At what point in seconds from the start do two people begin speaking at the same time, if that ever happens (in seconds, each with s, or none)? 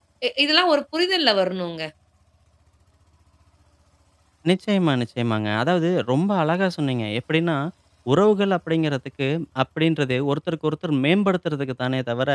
none